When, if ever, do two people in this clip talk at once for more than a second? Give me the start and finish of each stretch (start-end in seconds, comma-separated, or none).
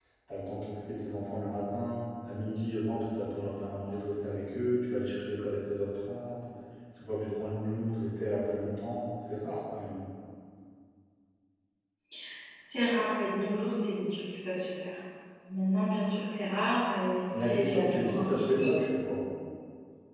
17.4-18.7